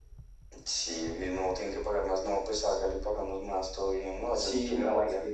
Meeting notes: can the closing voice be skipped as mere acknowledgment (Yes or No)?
No